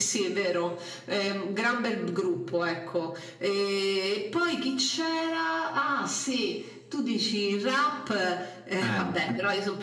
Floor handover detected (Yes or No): No